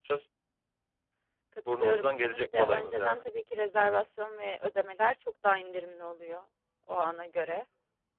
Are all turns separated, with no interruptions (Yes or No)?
No